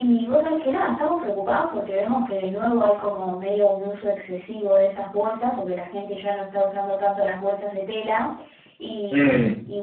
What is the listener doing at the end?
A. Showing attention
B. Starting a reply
A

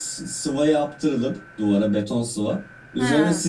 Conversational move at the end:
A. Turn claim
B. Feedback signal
B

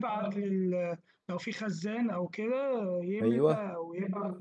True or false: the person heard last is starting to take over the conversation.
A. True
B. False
B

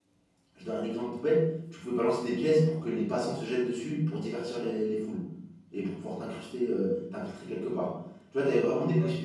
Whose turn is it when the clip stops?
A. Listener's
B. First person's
B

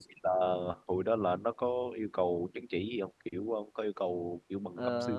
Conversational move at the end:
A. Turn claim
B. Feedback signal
A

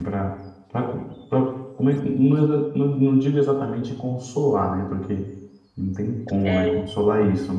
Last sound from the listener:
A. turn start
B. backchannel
B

